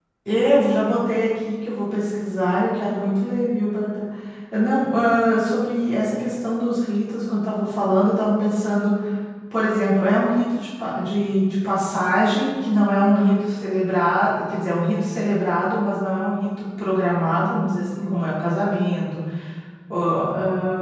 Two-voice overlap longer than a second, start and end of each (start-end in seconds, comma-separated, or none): none